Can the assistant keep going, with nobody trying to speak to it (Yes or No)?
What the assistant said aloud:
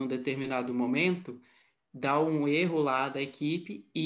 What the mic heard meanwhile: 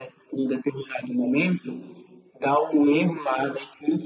Yes